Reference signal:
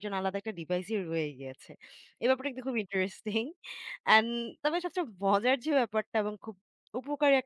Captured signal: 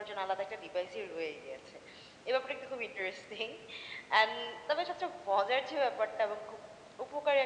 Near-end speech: none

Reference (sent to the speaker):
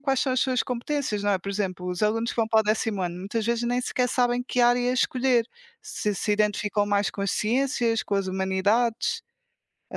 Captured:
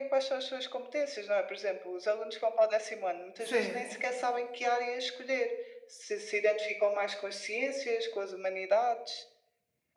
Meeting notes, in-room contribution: present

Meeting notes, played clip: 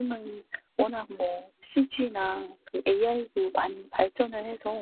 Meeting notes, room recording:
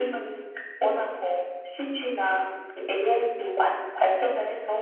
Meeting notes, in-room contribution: none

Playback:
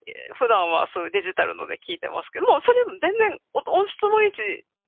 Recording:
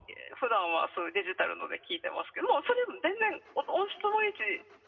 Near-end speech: none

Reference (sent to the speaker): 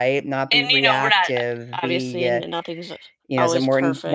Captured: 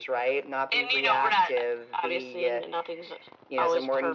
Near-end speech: none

